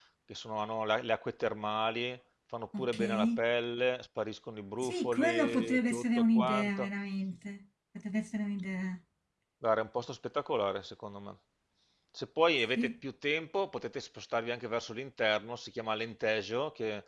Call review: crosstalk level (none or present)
present